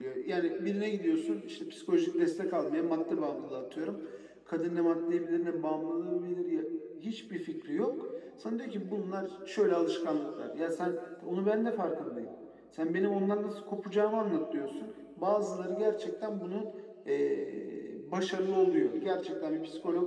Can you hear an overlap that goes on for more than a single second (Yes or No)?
No